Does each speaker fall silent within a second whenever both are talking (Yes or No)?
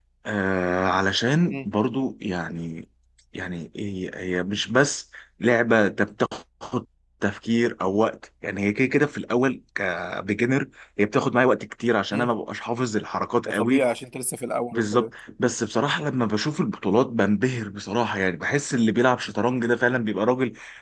Yes